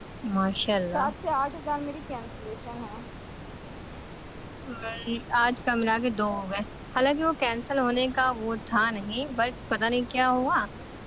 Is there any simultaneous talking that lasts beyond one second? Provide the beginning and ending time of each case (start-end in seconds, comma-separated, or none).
none